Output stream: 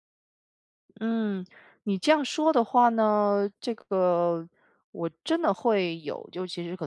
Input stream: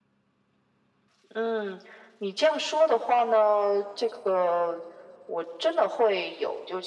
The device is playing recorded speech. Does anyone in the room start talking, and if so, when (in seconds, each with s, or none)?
none